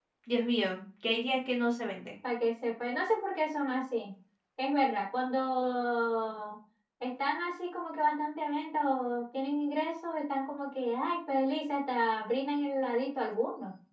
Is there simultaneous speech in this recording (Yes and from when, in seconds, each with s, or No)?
No